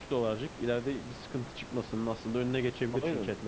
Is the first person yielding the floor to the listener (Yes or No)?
Yes